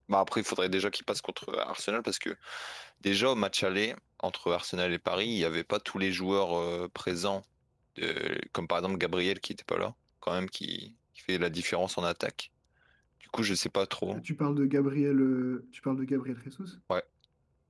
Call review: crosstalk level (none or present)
none